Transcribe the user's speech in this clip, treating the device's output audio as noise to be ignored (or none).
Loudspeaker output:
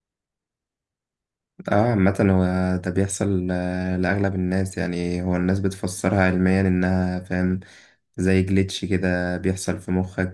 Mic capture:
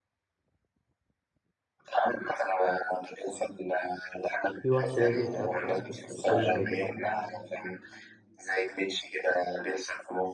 في وحش لازم تقاتله يعني في كل حاجة